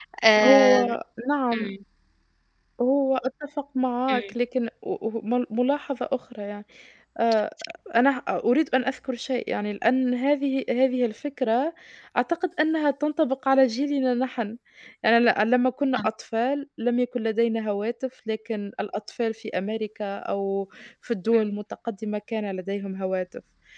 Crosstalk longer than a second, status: none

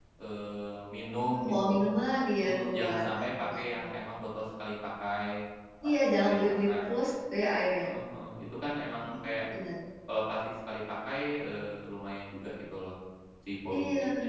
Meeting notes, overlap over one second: present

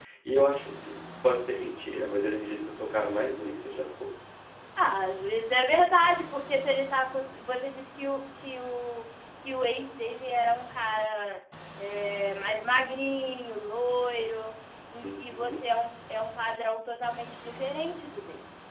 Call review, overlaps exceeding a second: none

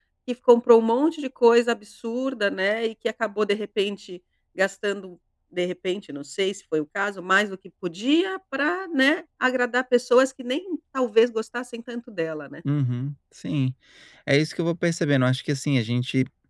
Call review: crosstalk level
none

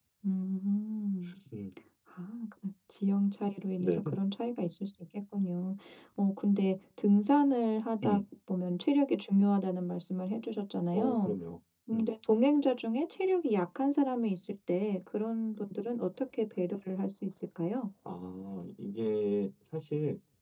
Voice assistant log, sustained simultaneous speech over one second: none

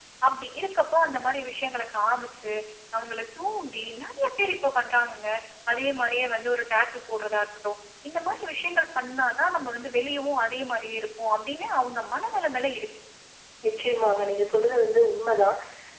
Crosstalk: none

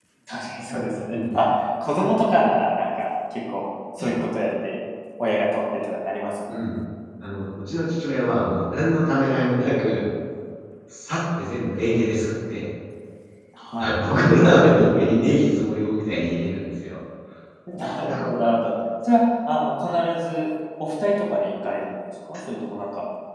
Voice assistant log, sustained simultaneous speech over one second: none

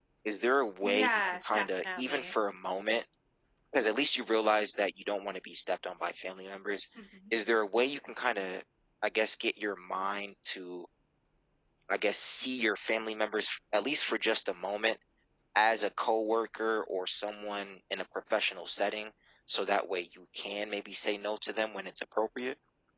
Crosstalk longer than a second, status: present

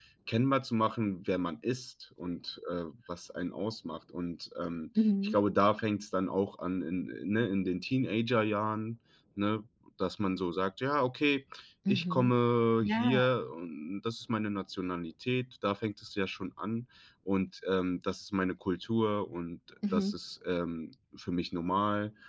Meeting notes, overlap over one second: none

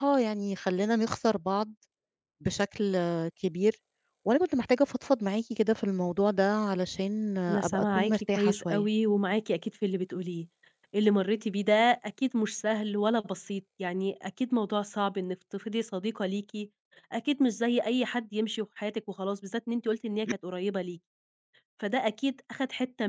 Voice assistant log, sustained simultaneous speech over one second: present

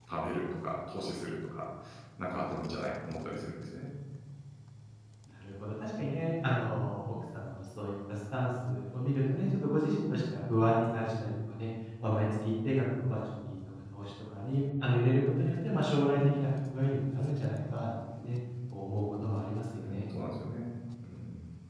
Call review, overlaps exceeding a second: none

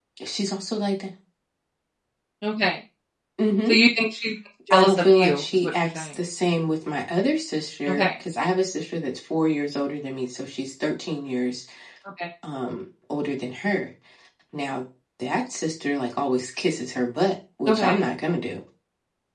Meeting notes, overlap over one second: present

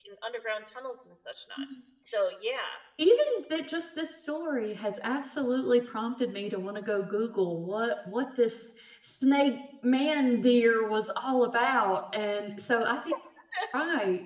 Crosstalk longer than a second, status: none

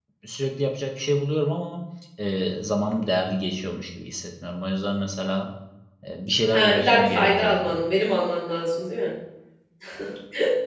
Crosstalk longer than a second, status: present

